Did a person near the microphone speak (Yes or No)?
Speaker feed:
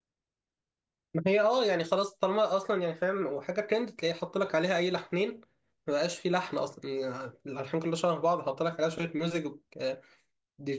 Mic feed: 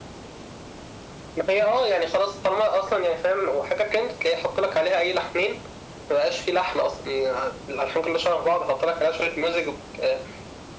No